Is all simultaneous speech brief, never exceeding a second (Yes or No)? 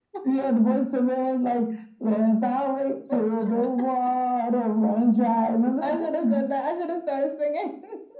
Yes